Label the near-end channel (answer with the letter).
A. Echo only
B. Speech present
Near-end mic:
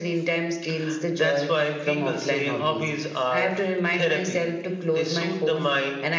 A